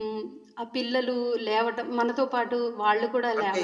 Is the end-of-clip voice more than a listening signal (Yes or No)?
Yes